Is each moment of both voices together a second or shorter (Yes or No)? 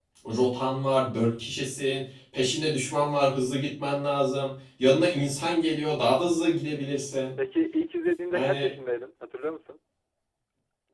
Yes